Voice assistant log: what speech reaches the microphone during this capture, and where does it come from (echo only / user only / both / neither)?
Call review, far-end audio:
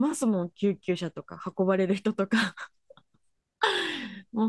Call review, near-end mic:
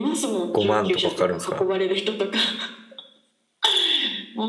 both